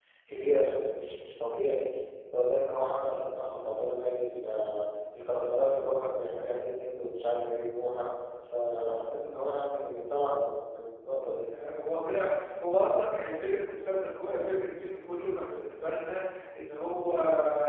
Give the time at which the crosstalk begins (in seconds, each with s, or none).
none